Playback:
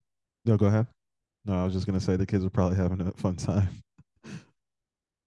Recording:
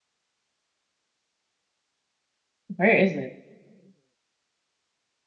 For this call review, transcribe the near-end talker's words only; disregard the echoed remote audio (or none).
Where is it?